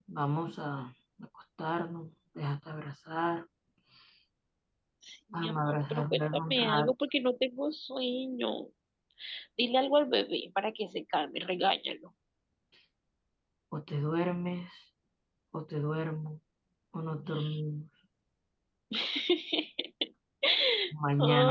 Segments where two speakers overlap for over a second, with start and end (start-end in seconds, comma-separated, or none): 5.3-6.9